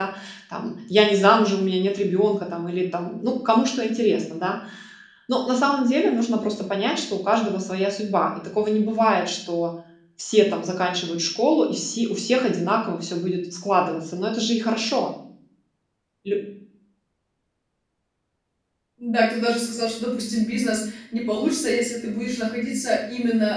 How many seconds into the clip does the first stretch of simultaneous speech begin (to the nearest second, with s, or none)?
none